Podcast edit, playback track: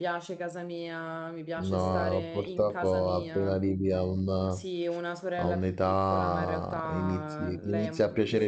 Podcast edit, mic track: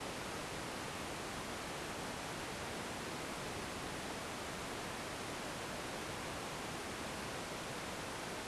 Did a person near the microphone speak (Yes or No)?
No